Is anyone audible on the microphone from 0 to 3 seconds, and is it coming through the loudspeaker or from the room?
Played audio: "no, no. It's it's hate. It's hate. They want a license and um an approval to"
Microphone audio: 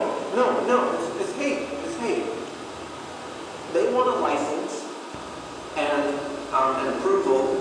echo only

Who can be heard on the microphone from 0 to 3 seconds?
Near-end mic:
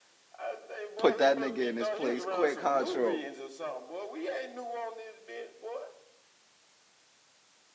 both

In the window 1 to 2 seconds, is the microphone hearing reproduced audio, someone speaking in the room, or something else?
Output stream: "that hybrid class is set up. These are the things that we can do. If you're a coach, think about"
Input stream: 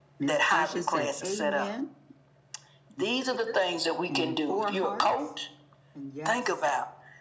both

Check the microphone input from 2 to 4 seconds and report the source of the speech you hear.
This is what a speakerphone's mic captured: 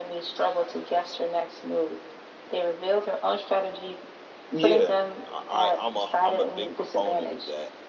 echo only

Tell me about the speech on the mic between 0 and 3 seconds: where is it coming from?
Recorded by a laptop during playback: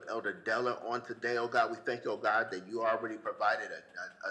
echo only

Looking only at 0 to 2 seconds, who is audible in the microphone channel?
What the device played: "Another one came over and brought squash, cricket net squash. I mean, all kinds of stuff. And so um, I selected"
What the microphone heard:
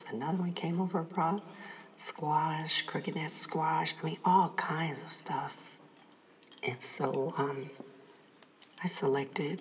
echo only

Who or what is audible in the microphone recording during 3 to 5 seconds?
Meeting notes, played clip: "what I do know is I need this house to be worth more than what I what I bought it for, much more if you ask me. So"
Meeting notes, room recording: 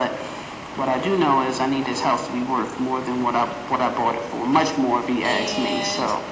echo only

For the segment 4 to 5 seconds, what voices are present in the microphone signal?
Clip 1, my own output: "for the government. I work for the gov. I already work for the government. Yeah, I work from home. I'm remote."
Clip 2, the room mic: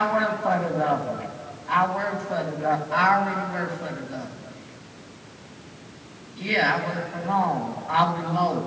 echo only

